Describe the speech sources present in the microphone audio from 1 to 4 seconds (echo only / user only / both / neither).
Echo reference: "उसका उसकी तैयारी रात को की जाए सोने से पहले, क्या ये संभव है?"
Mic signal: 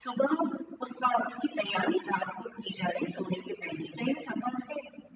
echo only